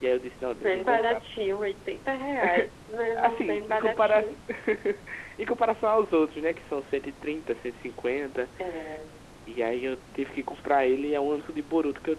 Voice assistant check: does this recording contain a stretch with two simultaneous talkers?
Yes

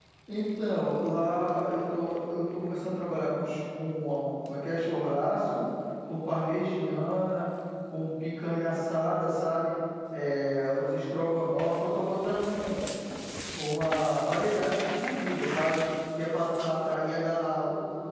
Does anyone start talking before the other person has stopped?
No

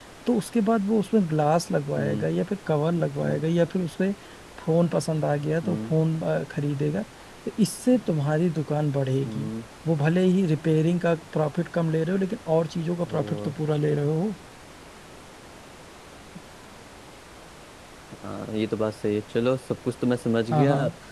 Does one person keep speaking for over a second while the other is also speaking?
No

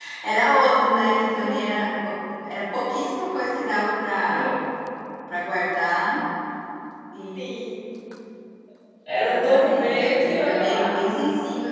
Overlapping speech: Yes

